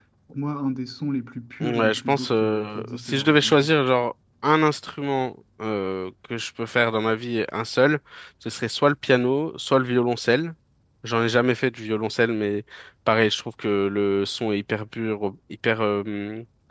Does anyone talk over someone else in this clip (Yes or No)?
Yes